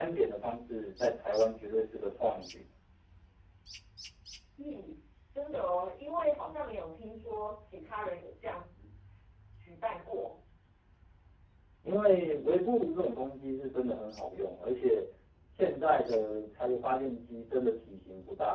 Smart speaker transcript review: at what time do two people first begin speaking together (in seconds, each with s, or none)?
none